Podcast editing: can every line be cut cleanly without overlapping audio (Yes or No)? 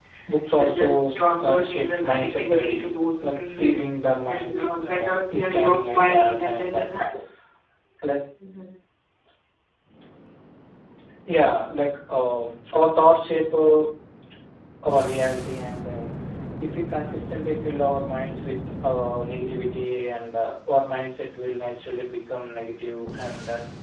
No